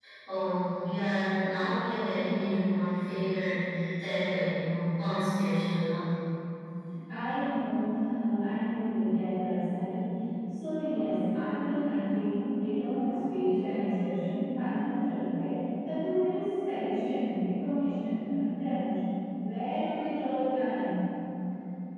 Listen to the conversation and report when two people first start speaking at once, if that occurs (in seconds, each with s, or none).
none